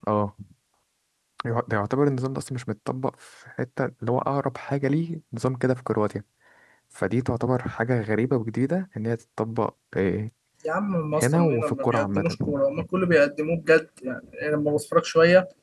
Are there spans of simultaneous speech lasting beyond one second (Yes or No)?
Yes